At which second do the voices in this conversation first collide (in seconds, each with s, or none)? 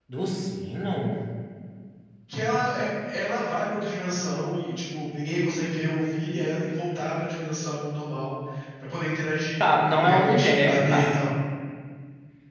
9.6 s